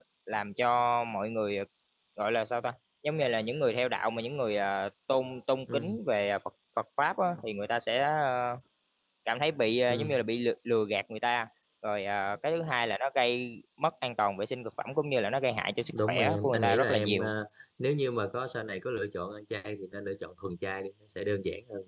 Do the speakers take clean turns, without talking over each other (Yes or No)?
No